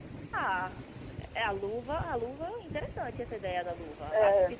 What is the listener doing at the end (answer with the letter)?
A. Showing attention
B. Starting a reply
A